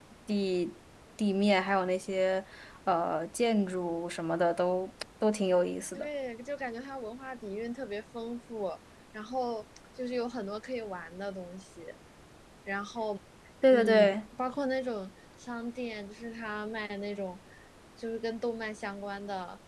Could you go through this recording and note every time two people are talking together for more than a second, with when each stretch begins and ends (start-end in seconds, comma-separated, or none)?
none